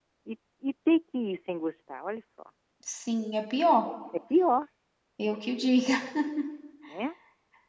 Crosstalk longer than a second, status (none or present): none